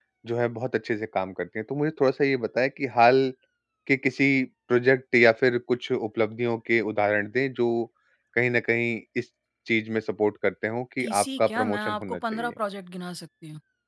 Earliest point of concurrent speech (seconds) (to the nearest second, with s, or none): 11 s